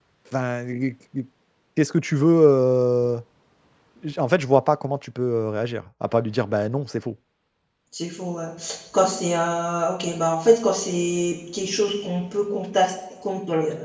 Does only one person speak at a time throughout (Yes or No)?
Yes